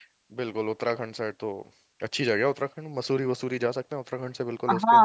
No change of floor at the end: No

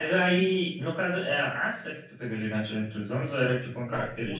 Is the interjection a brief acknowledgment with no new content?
No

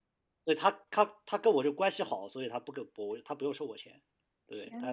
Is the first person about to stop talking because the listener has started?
No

